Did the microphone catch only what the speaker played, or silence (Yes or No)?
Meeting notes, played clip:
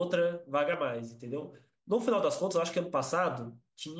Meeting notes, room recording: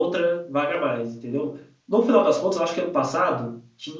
Yes